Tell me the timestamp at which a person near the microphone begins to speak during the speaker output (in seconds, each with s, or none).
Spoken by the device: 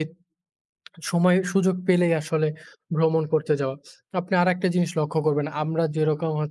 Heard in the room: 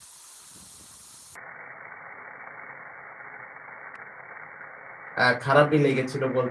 5.2 s